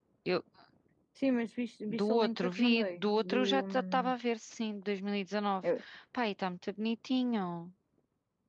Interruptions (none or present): present